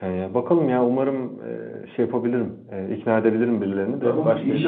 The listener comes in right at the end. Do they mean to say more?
Yes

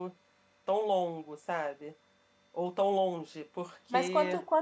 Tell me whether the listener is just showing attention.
No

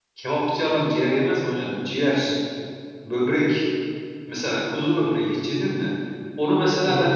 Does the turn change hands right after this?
No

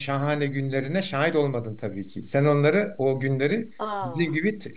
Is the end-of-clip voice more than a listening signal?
No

